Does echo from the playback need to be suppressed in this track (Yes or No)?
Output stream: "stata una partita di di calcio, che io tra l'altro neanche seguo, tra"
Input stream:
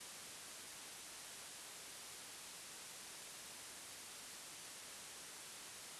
No